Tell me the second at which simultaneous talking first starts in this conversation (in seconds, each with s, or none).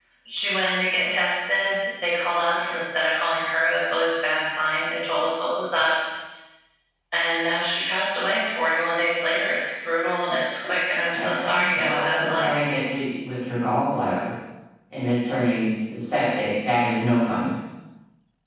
11.1 s